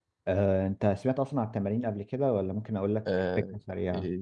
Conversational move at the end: taking over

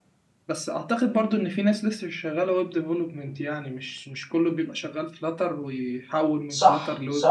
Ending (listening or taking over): taking over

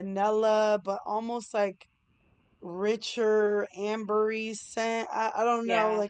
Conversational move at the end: listening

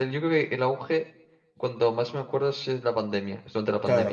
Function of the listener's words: taking over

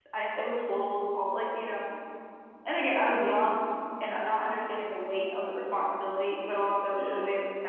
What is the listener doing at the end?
listening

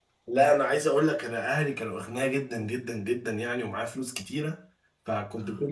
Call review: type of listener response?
listening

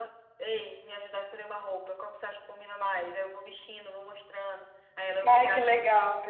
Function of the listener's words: taking over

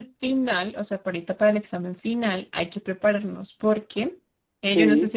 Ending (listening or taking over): listening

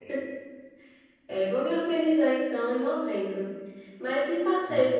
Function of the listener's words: listening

